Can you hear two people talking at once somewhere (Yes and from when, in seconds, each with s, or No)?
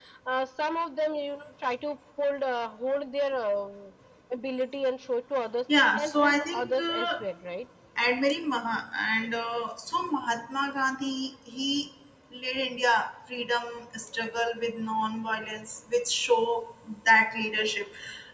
Yes, from 6.0 s